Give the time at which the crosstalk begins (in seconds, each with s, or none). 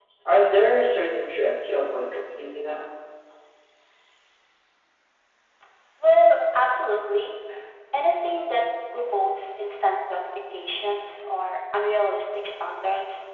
none